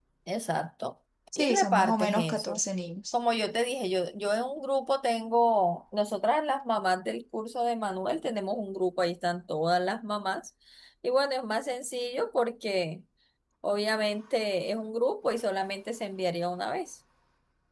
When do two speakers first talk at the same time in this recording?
1.3 s

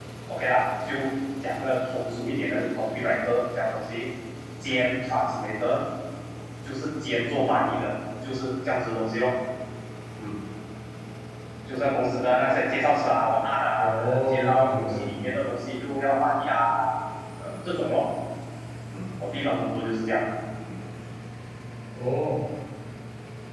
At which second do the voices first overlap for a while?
13.8 s

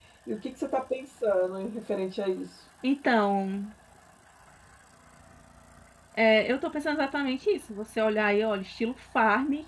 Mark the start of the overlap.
none

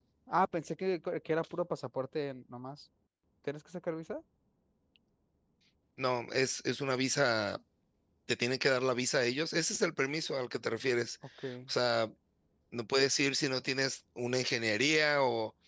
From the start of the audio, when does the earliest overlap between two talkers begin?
none

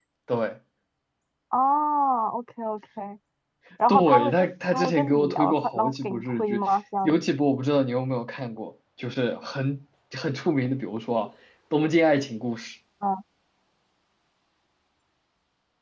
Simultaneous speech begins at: 3.9 s

